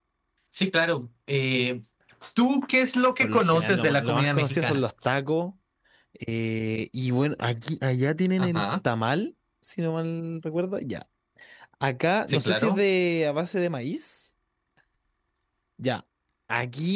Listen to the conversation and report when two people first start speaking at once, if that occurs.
3.2 s

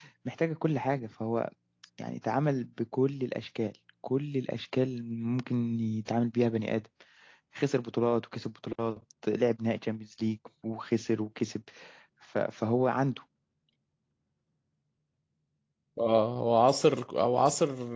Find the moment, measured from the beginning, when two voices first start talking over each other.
none

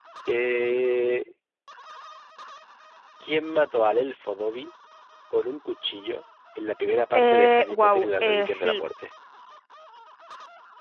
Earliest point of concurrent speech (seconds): 7.1 s

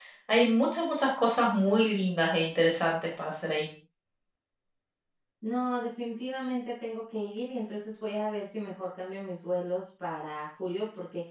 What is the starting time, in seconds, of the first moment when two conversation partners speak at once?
none

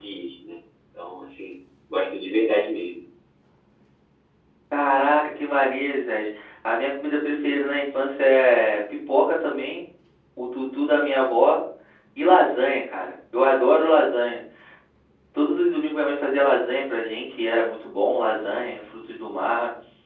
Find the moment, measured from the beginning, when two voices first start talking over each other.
none

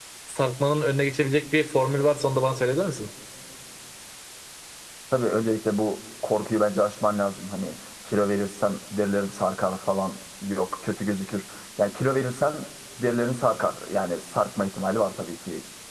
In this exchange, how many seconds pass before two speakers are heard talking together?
none

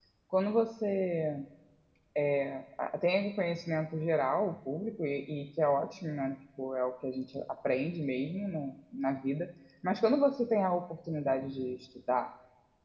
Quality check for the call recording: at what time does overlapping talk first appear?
none

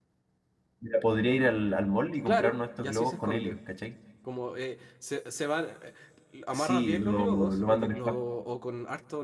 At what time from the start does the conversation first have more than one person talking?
2.2 s

